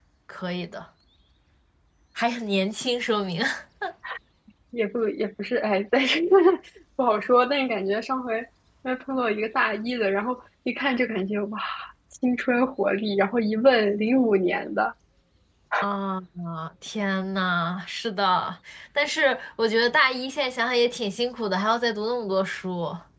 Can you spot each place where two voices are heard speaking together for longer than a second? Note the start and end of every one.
none

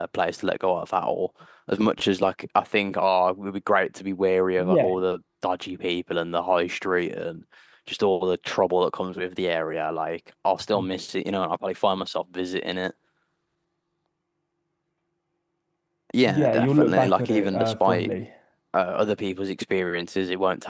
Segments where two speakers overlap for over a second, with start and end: 16.3-18.1

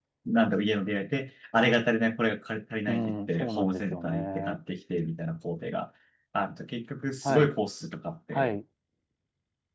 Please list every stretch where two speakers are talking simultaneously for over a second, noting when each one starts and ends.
2.9-4.6

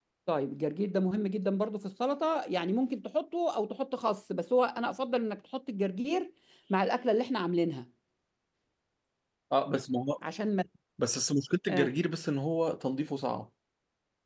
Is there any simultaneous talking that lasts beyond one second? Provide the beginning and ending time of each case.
none

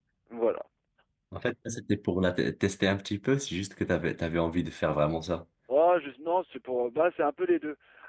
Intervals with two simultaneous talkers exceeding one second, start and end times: none

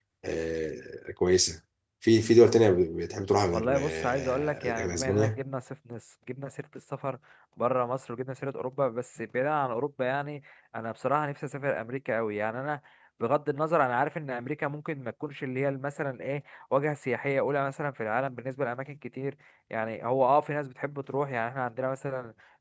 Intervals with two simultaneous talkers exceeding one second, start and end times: 3.5-5.4

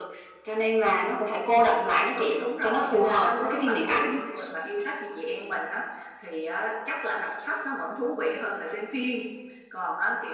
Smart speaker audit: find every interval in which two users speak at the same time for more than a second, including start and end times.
2.0-4.2

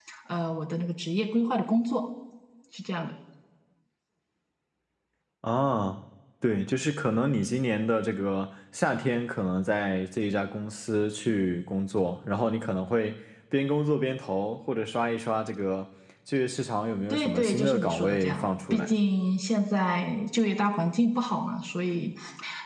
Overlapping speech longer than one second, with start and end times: 17.1-18.9

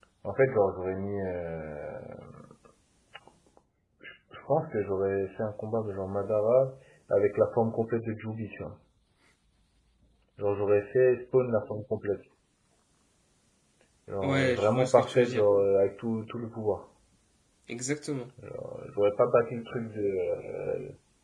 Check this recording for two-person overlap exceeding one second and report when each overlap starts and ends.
14.2-15.4

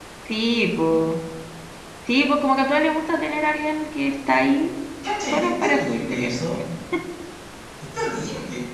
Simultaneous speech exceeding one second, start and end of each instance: 5.2-6.4

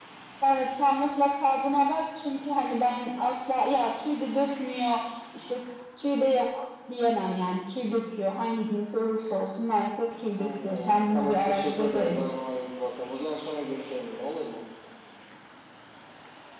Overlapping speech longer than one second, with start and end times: 10.4-12.2

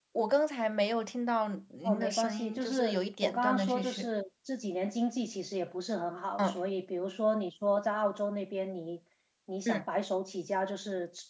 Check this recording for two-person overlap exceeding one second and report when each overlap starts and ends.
1.8-4.1

